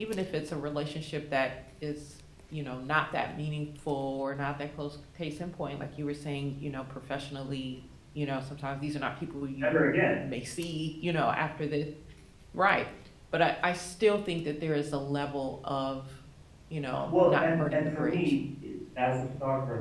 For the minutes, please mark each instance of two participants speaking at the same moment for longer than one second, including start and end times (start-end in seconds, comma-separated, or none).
17.1-18.3